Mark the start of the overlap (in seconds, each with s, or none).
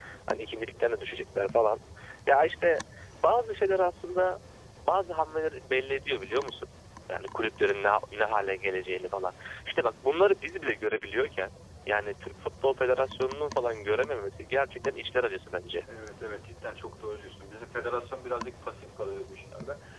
none